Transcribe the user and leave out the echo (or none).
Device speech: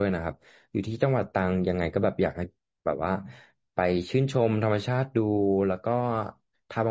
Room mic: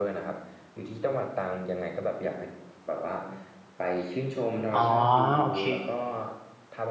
อ๋อโอเค